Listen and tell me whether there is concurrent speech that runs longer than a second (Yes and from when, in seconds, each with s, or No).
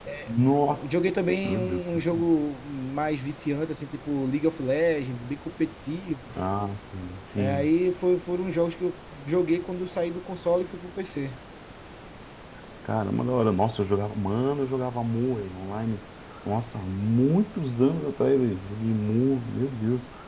No